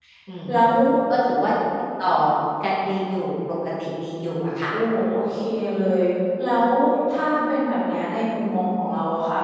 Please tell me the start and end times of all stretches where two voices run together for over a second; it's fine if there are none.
none

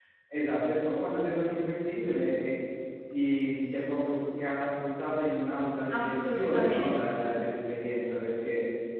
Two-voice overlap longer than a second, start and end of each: 5.9-7.4

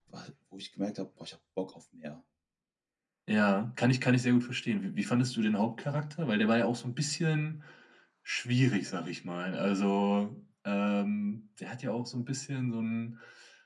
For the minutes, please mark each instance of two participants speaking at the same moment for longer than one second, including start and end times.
none

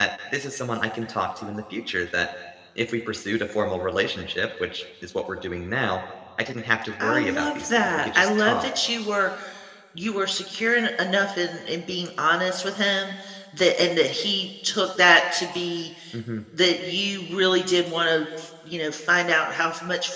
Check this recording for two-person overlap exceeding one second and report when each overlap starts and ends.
7.0-8.7

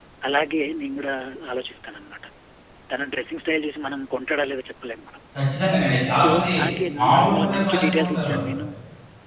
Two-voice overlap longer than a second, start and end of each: 7.0-8.3

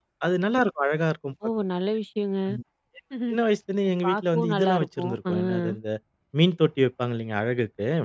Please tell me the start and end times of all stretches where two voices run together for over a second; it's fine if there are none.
4.0-5.8

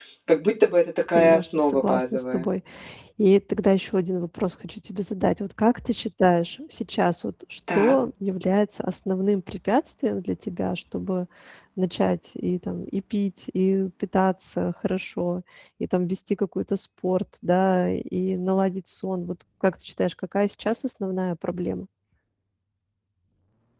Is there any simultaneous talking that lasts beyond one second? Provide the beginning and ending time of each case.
1.1-2.5

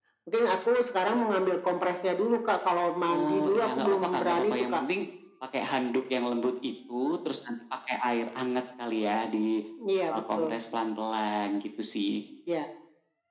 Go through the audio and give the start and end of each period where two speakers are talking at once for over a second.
3.1-4.8

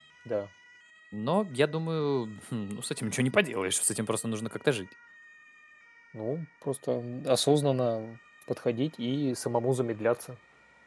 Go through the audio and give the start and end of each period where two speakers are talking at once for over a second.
none

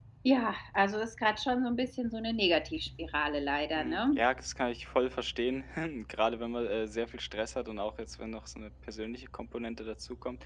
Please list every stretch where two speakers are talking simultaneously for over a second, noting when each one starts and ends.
none

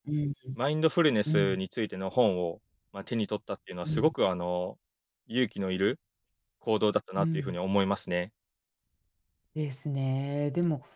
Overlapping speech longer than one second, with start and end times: none

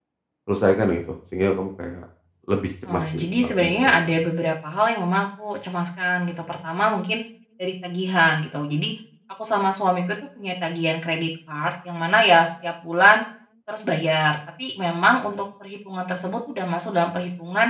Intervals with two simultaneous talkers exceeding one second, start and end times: 2.9-4.2

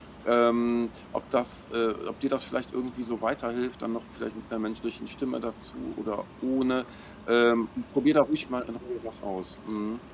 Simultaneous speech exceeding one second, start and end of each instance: none

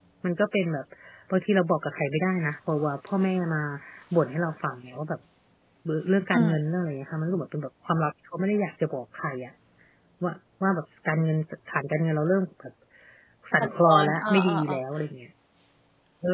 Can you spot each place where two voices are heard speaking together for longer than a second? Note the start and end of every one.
13.6-14.8

